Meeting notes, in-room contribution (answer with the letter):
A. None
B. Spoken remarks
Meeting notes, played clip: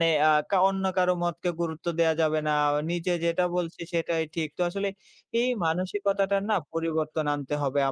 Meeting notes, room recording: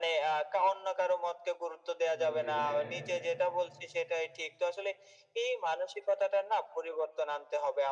B